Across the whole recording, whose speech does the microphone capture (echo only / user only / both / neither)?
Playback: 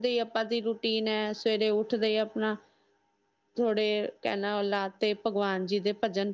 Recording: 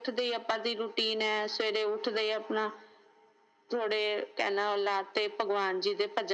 echo only